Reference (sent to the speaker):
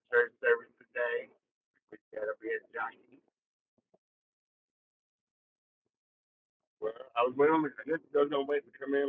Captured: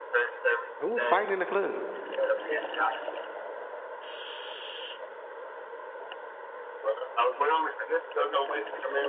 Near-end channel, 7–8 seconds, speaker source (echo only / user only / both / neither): echo only